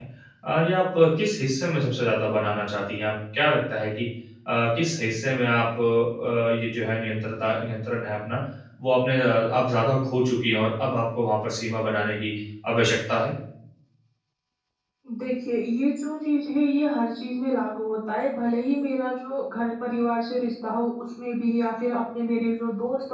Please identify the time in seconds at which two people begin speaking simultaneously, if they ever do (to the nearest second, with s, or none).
none